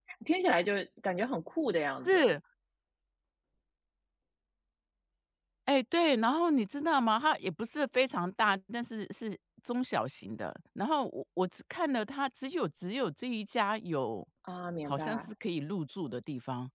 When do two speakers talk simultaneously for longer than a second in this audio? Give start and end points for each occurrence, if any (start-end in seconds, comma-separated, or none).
none